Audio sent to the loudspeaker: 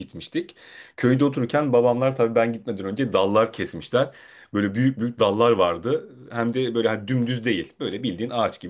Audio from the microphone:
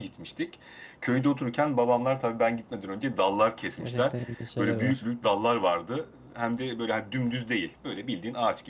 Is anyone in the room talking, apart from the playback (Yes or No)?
Yes